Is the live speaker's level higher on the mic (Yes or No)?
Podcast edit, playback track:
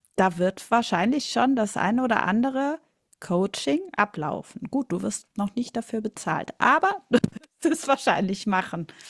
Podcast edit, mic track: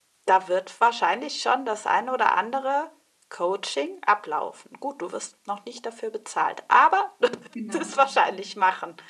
No